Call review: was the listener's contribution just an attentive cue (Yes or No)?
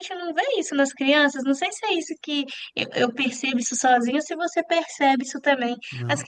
Yes